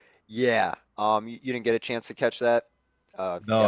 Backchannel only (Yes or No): No